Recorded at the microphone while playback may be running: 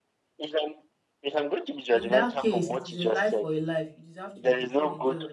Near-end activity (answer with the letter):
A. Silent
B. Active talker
B